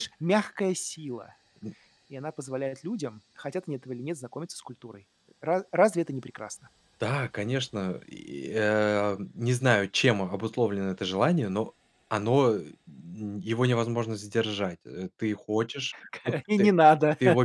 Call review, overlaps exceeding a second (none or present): none